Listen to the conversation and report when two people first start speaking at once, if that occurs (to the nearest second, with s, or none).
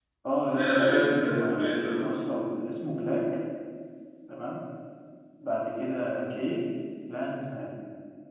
1 s